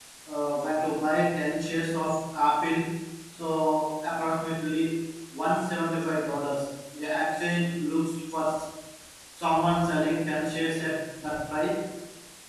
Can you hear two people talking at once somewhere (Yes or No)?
No